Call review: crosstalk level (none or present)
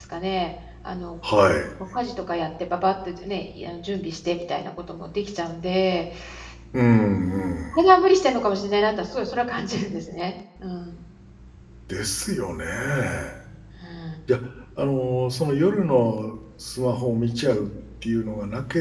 none